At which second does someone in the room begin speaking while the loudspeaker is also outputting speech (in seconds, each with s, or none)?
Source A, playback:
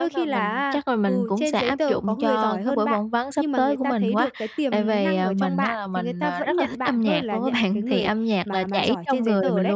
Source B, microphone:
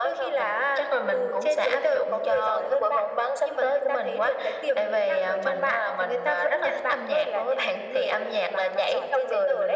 none